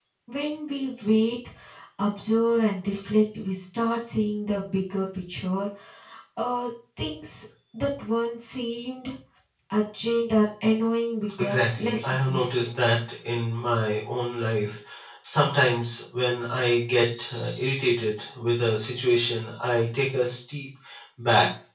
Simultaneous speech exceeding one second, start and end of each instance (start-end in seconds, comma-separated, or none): 11.4-12.7